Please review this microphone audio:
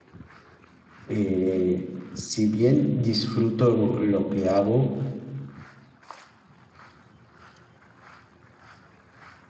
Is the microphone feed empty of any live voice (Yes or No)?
No